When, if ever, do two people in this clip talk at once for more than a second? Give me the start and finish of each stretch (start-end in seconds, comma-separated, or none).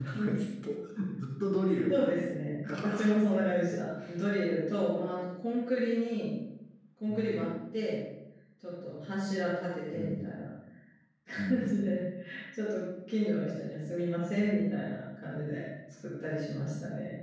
2.6-3.8